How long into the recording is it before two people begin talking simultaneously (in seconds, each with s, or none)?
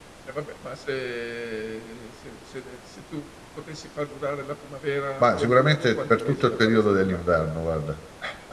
5.2 s